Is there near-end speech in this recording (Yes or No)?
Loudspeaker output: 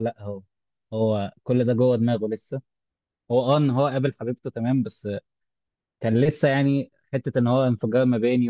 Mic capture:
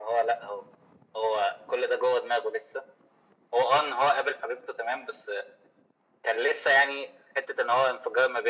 No